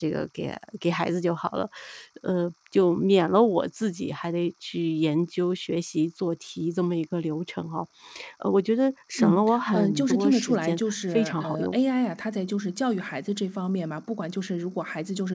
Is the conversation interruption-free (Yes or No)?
No